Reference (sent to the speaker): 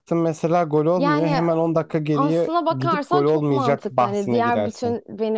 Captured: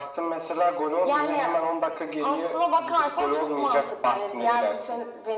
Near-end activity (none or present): none